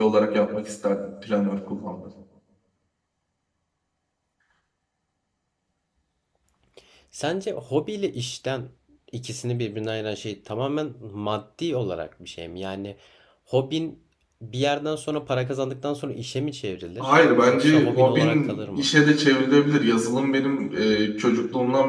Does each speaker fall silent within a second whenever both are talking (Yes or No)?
No